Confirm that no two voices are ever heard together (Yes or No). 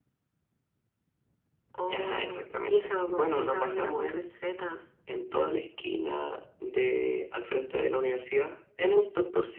No